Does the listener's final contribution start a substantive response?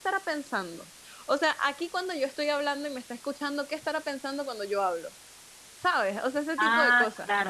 Yes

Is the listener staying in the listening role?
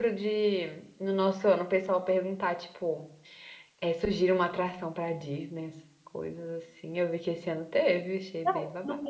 No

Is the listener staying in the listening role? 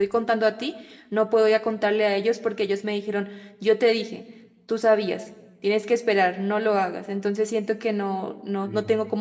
Yes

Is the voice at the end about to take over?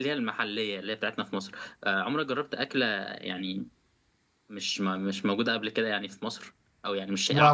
Yes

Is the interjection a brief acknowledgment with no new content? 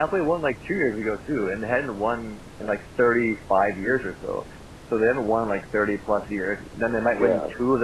Yes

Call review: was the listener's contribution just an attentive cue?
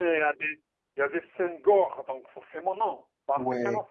No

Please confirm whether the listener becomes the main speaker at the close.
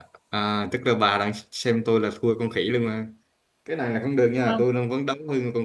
No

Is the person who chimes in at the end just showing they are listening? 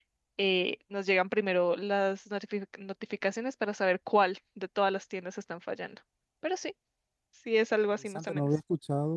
No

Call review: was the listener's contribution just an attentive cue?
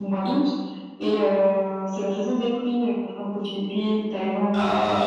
Yes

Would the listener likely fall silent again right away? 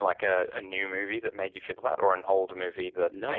No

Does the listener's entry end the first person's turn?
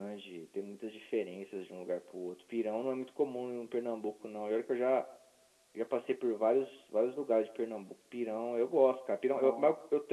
No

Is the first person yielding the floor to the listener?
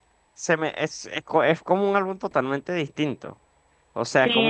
No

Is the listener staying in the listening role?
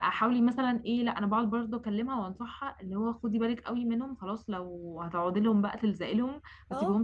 Yes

